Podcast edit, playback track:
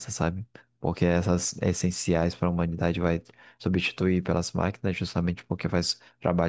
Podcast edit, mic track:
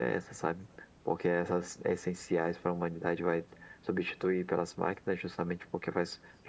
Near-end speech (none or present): none